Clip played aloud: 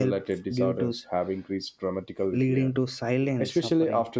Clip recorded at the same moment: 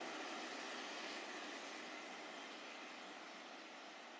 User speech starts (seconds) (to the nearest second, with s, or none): none